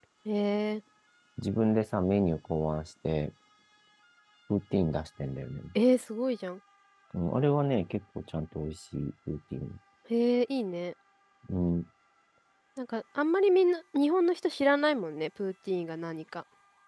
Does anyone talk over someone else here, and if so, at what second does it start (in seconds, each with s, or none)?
none